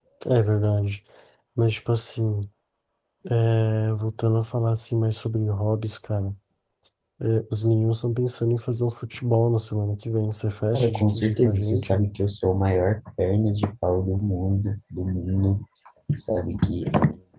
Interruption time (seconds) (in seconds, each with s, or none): 10.7 s